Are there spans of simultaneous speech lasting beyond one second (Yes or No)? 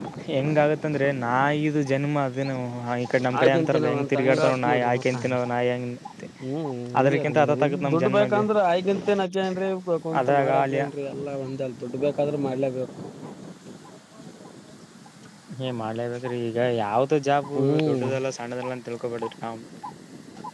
Yes